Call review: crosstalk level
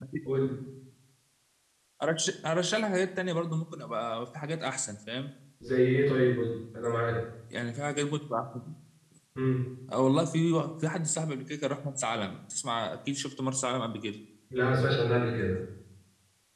none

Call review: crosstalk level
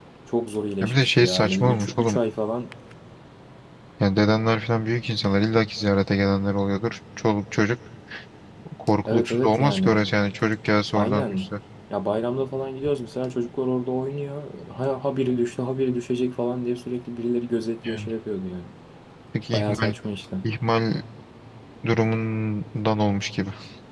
present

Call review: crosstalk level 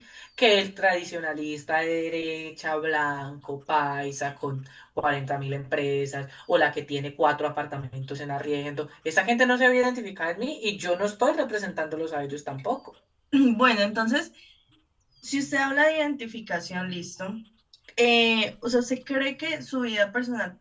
none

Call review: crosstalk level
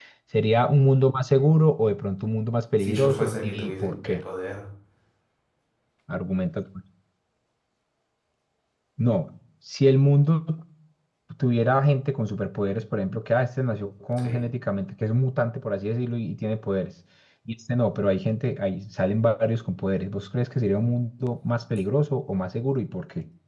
present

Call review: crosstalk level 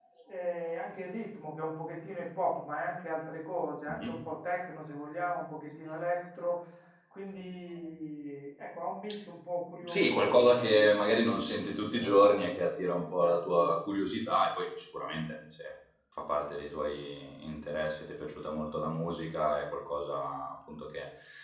present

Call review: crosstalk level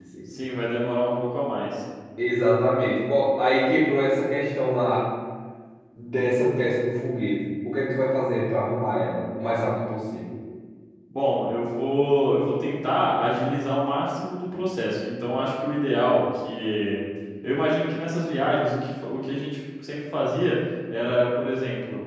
none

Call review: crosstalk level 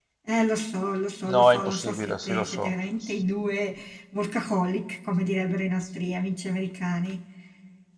present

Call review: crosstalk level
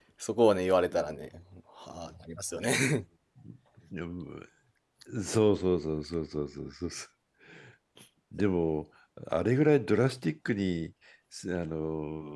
none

